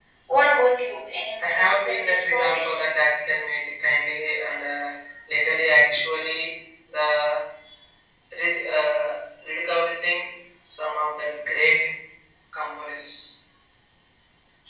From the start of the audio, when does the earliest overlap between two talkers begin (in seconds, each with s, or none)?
1.4 s